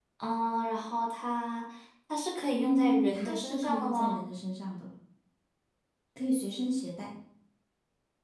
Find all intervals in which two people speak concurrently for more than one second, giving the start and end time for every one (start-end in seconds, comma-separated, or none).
2.6-4.2